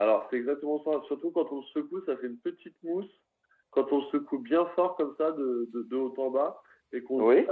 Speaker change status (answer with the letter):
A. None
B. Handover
A